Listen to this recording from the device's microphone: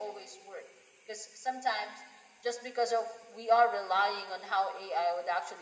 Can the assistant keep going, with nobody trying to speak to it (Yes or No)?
Yes